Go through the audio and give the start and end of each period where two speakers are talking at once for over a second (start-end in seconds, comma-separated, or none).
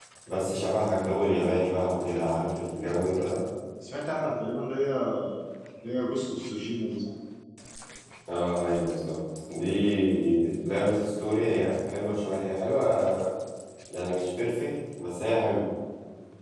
none